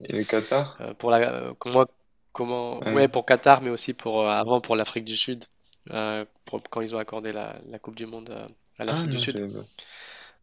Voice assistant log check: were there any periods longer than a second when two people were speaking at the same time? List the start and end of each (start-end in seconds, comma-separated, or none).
none